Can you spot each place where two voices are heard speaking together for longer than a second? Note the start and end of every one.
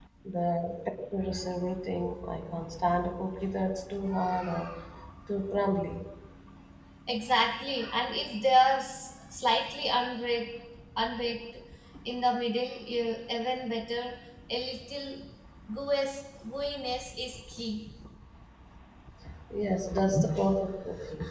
none

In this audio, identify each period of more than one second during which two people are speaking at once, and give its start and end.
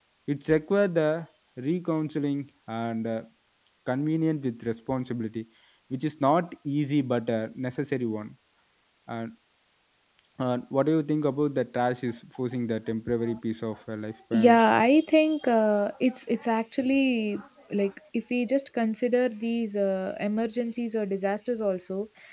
none

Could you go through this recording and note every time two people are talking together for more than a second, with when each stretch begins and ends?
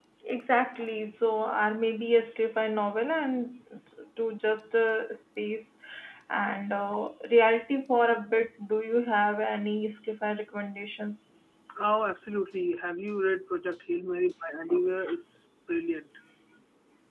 none

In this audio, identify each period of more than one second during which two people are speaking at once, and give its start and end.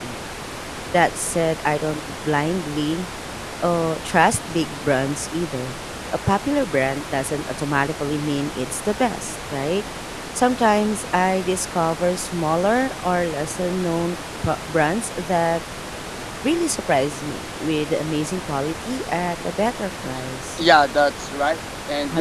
none

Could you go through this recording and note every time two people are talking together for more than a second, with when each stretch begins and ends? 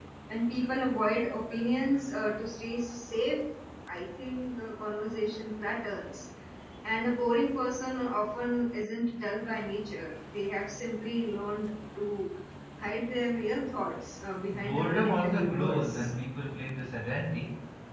14.5-16.1

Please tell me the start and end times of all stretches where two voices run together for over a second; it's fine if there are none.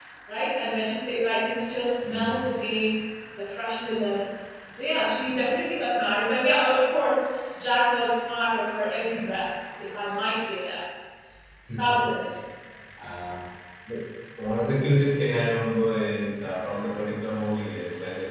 none

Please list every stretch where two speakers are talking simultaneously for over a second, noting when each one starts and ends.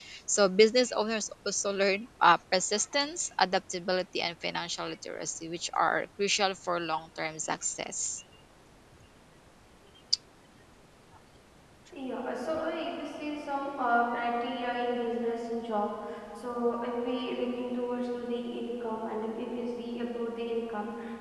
none

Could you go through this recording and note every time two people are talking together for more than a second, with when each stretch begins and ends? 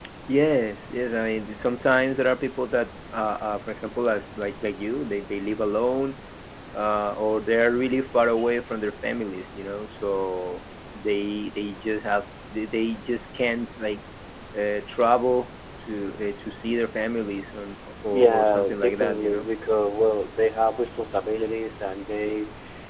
18.1-19.5

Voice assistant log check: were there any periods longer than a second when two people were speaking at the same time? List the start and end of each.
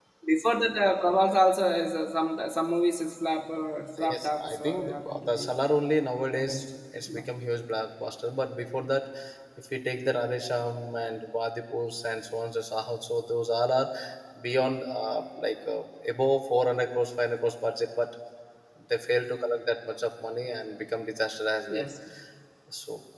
4.1-5.5

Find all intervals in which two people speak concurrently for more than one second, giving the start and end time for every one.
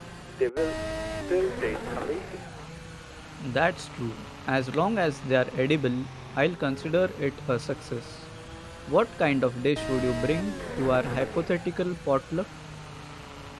none

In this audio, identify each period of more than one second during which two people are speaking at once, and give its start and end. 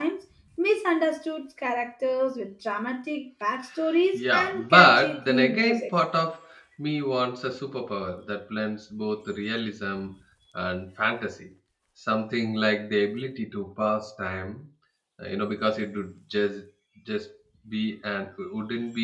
4.1-5.9

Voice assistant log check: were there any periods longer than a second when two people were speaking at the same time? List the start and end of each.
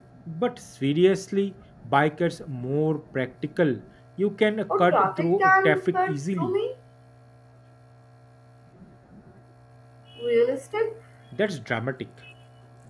4.8-6.5

